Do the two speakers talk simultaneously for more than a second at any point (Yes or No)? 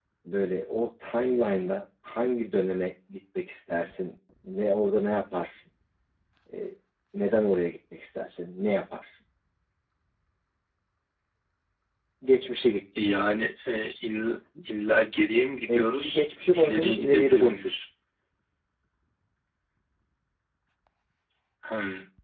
Yes